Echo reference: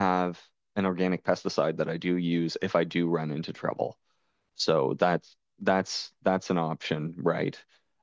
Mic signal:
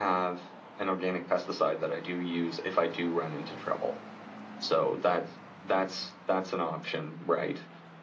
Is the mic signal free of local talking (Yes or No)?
Yes